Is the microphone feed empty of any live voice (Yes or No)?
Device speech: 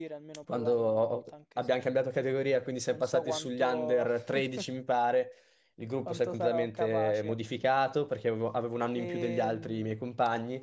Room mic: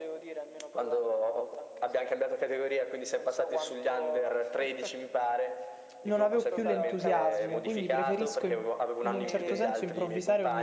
No